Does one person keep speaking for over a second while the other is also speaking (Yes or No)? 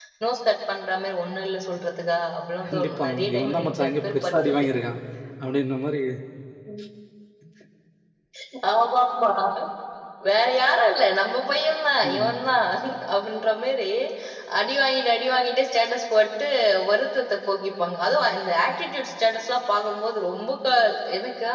Yes